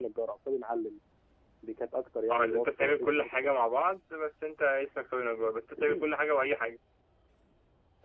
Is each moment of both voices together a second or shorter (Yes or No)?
No